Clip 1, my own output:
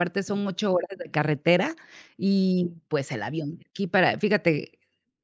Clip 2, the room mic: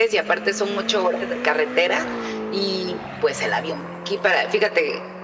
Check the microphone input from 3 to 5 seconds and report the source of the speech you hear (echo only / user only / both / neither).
echo only